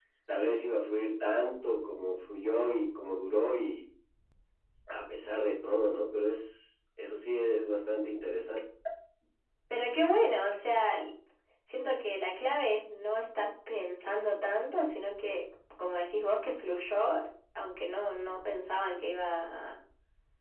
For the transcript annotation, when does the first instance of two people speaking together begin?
none

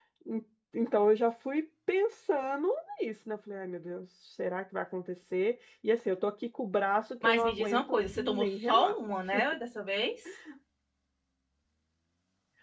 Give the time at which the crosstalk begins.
7.2 s

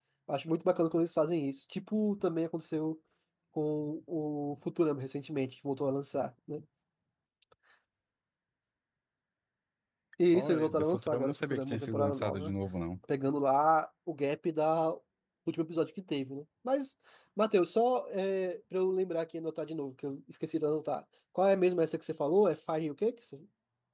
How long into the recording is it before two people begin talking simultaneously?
10.3 s

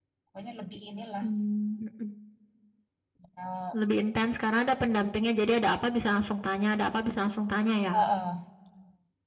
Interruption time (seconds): none

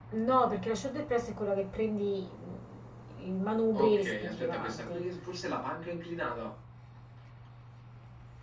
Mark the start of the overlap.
3.7 s

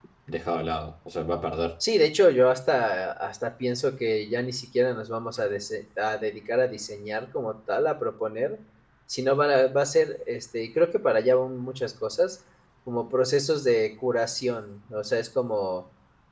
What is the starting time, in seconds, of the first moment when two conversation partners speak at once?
none

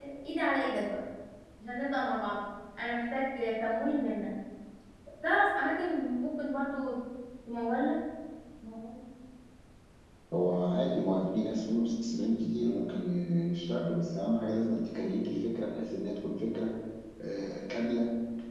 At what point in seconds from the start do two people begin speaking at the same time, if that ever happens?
none

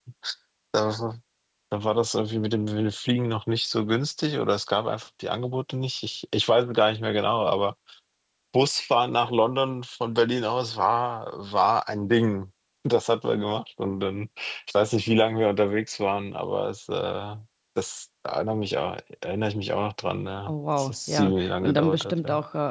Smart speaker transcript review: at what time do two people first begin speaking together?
20.5 s

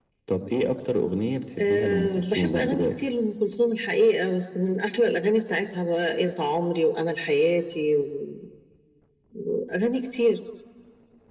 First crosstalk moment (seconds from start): 1.6 s

